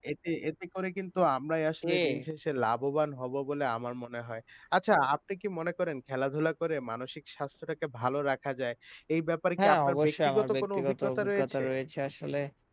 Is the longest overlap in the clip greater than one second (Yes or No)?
Yes